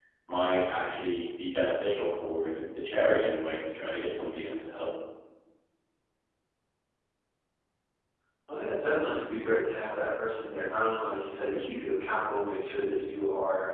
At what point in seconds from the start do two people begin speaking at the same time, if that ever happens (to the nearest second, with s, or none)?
none